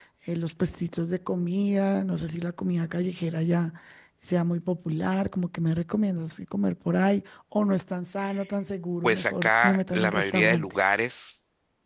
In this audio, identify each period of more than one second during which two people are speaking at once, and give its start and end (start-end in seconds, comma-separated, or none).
9.0-10.8